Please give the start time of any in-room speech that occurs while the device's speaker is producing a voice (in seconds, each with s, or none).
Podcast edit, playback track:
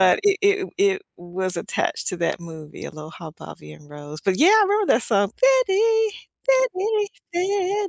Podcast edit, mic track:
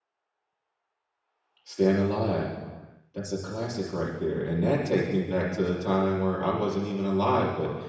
1.6 s